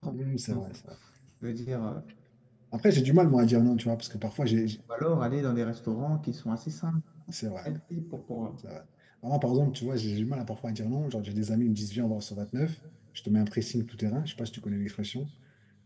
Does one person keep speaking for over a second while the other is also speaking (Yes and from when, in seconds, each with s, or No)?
No